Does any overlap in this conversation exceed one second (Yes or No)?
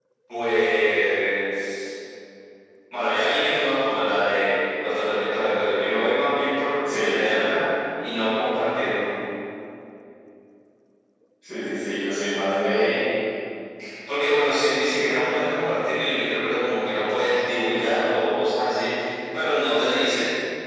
No